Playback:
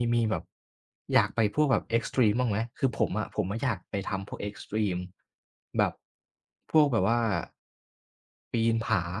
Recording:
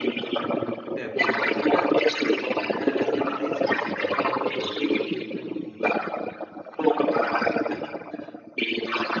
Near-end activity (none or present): present